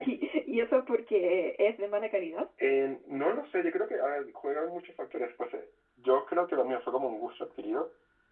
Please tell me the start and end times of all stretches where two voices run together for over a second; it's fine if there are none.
none

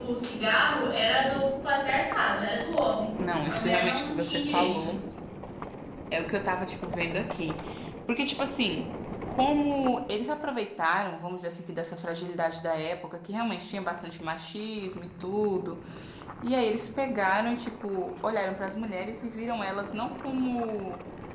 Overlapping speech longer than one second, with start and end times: 3.5-4.9

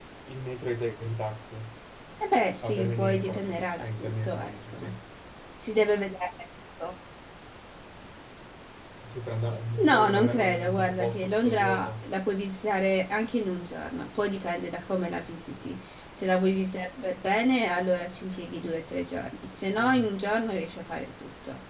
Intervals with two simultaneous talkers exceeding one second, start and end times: 2.6-4.9, 9.8-12.1

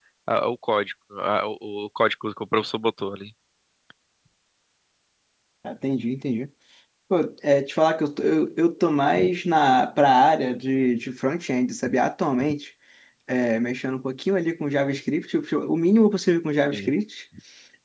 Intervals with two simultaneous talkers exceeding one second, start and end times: none

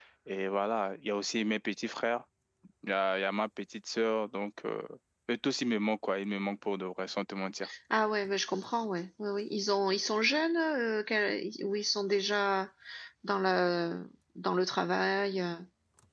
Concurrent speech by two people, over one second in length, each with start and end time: none

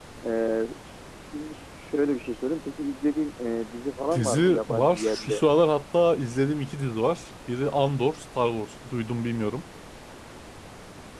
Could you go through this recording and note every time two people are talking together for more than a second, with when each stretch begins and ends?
4.1-5.4

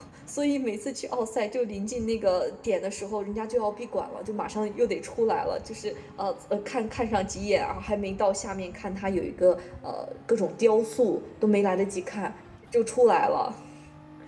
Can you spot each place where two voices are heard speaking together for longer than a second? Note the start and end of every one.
none

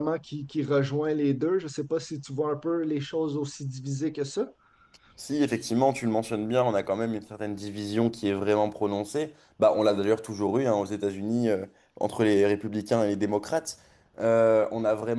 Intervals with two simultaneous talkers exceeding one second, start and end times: none

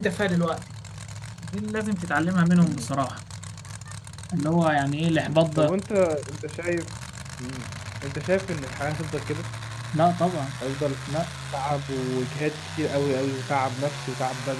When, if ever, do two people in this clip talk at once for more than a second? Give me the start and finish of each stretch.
none

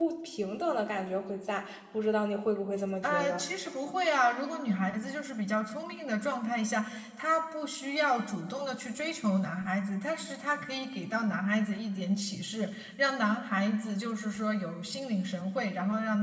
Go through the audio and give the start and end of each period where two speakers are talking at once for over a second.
none

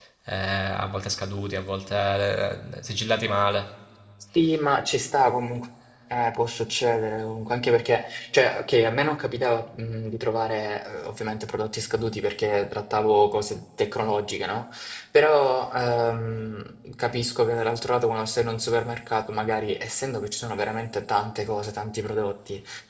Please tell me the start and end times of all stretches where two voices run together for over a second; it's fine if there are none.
none

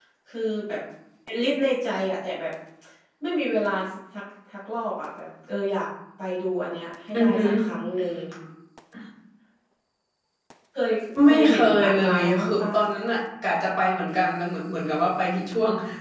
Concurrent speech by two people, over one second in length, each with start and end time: 11.3-12.7

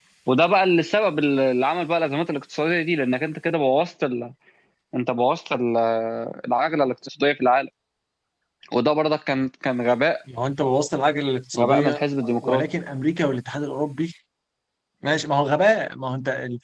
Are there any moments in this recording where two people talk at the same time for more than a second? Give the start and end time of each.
none

